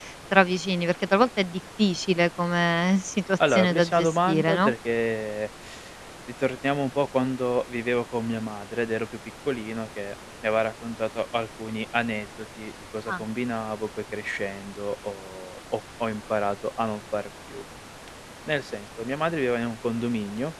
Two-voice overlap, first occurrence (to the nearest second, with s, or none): 3 s